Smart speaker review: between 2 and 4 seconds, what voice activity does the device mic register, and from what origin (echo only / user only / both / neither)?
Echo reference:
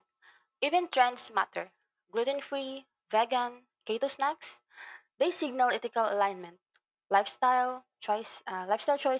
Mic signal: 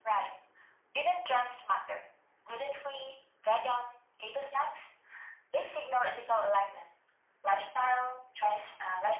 echo only